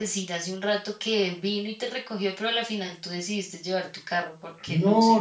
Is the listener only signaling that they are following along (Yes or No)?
No